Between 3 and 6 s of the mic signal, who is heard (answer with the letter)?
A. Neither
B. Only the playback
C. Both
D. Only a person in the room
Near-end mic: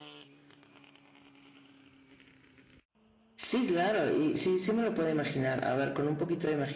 D